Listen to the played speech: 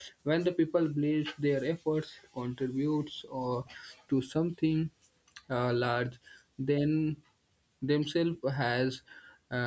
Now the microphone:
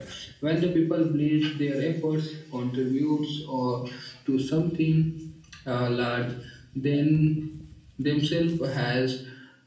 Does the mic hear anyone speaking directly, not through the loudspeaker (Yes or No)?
No